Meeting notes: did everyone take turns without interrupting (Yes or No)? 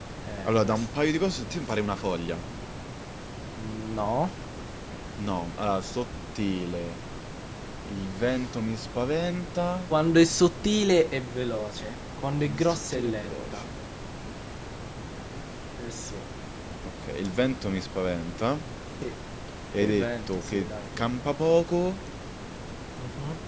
No